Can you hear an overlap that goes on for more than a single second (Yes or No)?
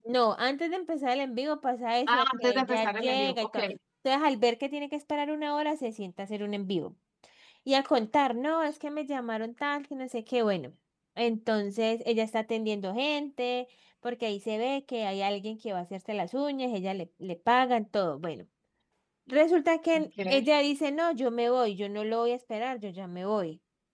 Yes